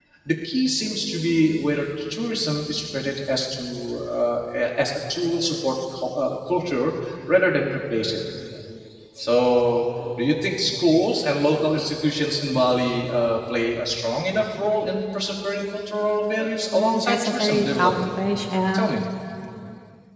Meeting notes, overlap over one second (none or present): present